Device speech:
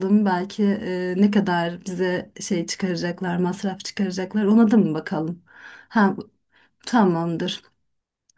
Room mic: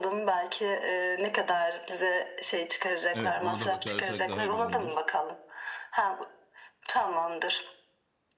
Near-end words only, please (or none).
Evet ona da bakarsak daha güzel olur.